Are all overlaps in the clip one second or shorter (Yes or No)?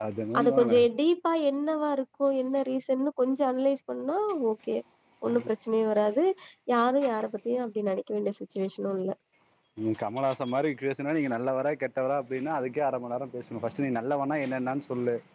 Yes